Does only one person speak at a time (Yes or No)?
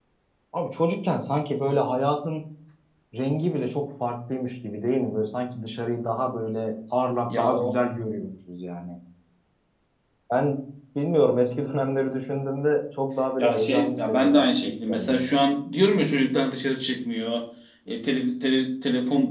No